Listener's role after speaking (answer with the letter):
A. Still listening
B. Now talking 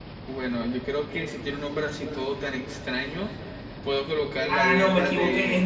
B